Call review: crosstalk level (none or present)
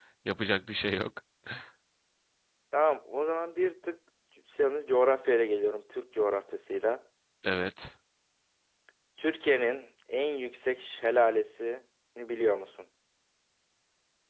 none